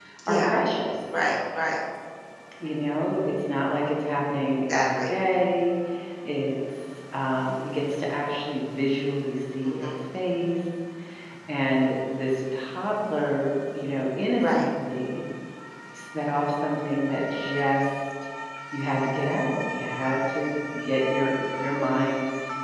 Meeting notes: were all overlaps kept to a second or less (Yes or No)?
Yes